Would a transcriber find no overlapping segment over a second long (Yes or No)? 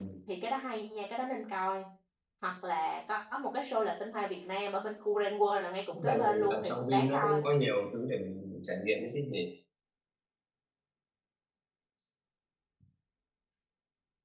No